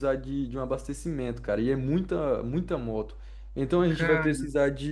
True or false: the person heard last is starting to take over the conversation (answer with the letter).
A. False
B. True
A